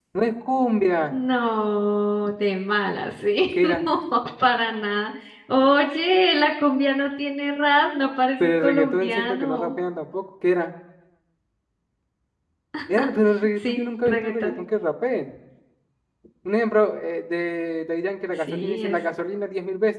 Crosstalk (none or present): present